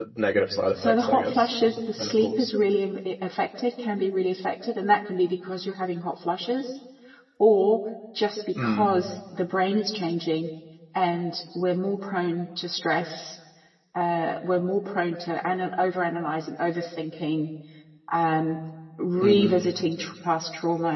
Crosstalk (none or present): present